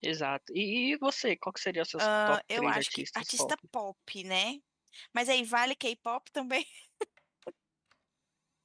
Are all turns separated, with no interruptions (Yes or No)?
No